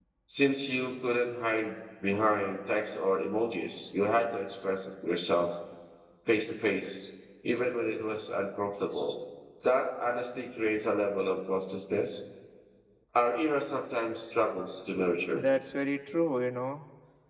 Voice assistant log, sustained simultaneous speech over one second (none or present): none